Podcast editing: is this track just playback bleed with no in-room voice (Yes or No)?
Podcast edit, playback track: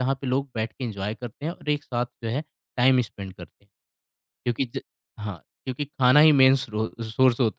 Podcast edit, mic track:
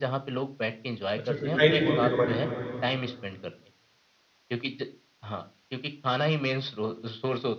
No